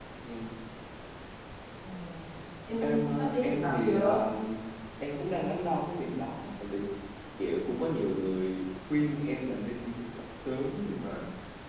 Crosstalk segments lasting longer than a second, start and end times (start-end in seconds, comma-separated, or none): 2.8-4.2